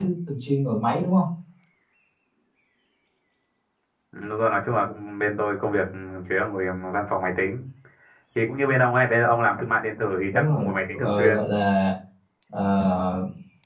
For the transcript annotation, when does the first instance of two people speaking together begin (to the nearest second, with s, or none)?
10 s